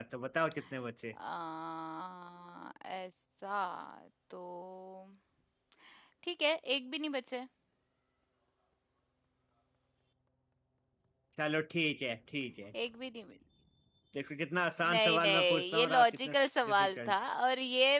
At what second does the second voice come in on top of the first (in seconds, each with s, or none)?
14.9 s